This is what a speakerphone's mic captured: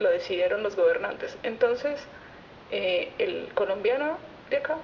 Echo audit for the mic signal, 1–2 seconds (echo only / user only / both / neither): echo only